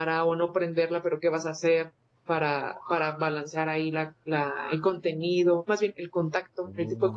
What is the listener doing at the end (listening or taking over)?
listening